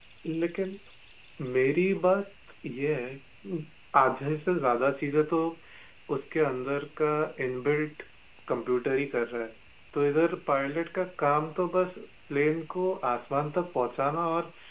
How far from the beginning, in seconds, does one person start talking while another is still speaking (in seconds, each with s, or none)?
none